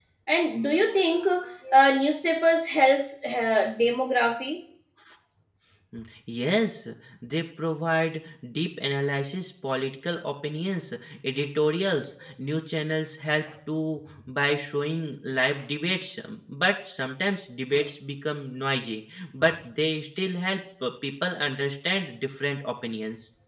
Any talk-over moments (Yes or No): No